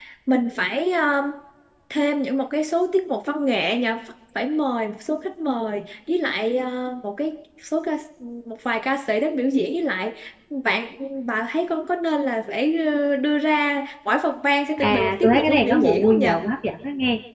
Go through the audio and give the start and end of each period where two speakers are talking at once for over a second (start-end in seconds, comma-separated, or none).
14.8-16.3